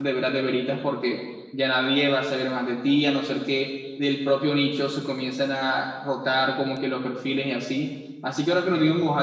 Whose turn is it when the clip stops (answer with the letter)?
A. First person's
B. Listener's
A